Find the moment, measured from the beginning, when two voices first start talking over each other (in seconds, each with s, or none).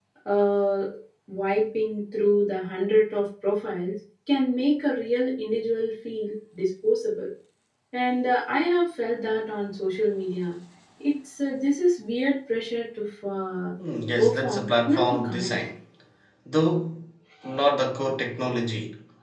14.2 s